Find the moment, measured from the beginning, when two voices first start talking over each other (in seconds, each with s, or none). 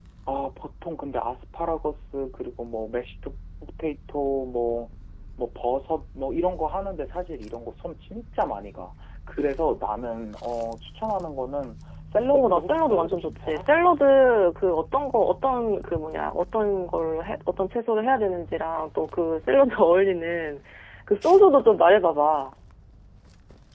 12.3 s